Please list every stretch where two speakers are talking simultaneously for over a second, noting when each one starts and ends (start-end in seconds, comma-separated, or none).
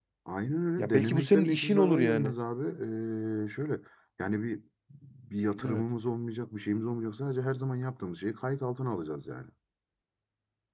0.8-2.3